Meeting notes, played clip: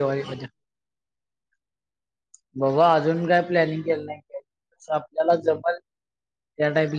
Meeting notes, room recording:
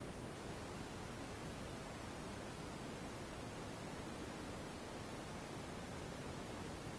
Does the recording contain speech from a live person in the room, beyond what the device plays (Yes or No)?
No